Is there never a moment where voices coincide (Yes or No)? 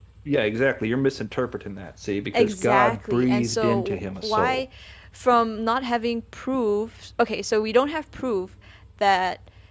No